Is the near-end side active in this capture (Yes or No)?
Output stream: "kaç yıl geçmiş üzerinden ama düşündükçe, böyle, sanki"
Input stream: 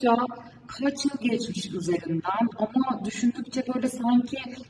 No